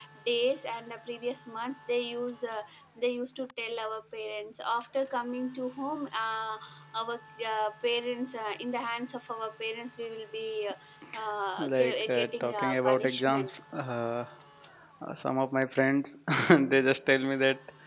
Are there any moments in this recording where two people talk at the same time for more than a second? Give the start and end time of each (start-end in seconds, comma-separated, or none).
11.6-13.5